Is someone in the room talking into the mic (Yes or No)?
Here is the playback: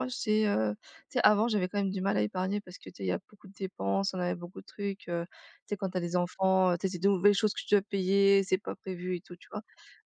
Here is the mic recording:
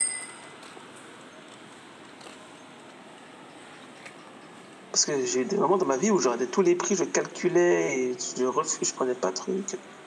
Yes